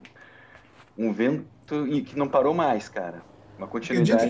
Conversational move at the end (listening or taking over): taking over